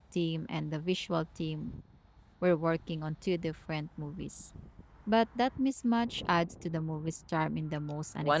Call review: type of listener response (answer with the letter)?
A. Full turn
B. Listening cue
A